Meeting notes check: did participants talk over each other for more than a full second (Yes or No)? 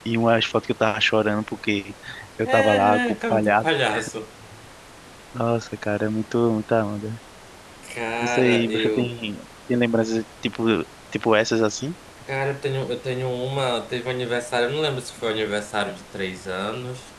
Yes